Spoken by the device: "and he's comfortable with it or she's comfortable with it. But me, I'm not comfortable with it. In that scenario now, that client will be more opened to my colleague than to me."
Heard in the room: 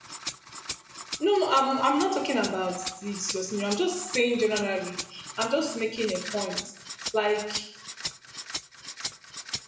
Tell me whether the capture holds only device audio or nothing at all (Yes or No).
No